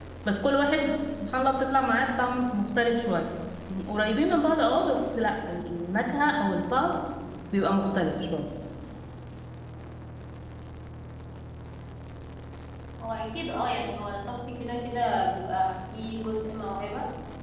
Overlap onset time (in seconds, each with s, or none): none